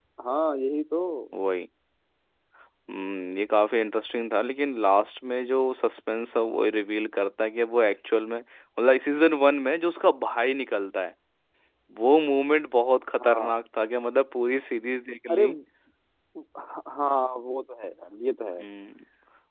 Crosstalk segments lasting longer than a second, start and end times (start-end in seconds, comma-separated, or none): none